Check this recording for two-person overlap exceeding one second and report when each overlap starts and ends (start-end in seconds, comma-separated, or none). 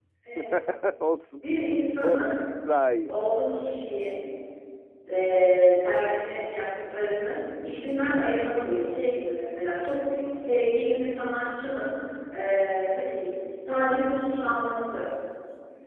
none